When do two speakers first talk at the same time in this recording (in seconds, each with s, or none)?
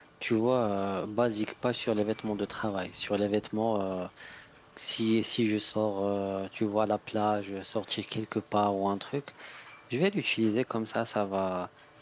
none